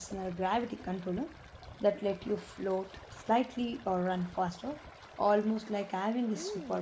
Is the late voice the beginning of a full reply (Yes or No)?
Yes